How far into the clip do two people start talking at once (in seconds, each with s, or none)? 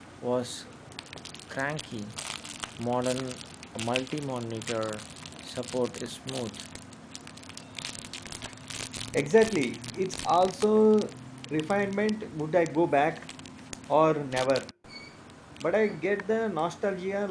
none